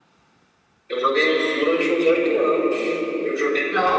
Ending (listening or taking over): listening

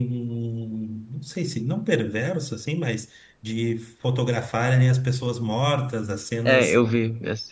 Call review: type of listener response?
taking over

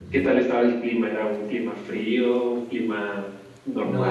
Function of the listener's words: taking over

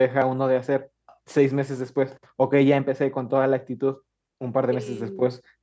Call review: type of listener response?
listening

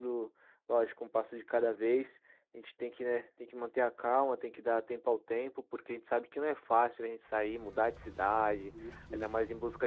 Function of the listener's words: listening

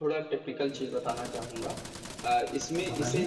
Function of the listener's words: listening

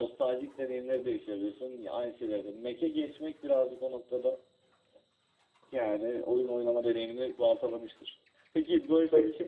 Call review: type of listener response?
listening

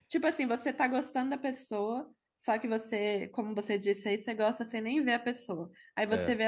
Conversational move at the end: listening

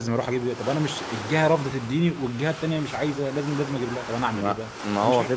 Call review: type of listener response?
taking over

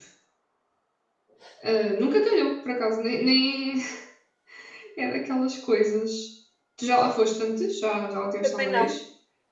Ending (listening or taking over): taking over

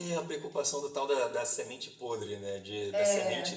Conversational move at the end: listening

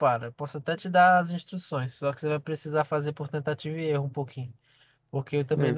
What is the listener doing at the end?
listening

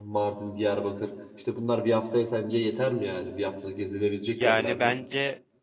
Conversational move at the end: taking over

